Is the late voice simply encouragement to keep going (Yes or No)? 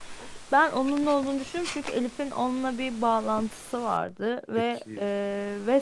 Yes